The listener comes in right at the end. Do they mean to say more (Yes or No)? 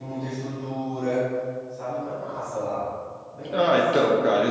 Yes